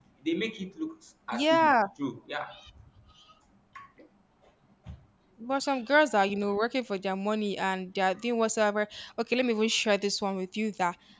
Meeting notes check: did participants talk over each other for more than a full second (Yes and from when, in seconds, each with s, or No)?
No